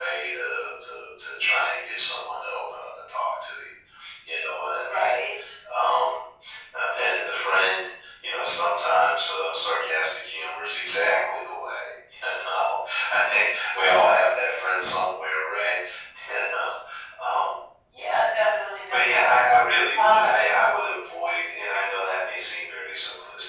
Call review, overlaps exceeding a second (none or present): none